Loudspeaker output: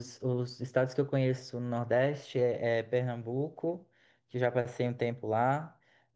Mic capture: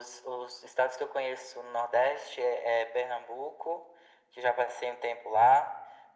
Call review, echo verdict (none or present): present